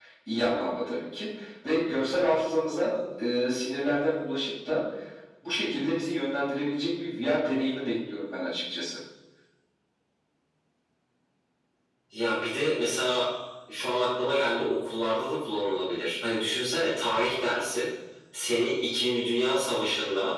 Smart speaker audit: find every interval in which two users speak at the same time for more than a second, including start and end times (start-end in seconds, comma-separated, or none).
none